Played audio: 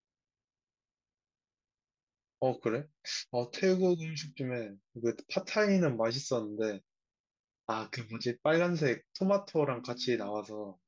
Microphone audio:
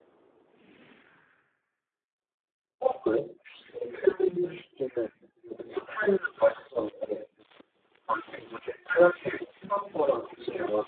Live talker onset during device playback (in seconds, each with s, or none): none